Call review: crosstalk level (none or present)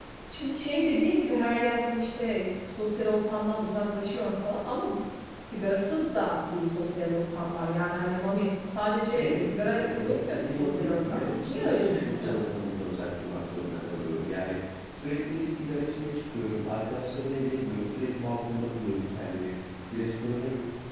present